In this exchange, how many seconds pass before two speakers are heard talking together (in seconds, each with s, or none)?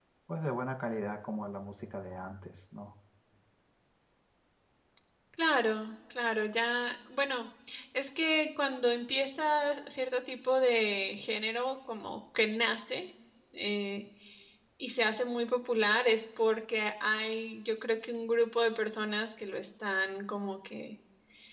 none